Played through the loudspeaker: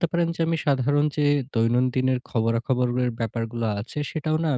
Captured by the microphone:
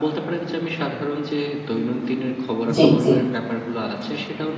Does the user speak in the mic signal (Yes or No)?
Yes